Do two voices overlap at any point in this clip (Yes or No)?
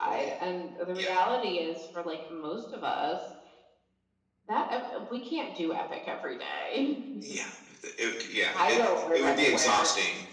Yes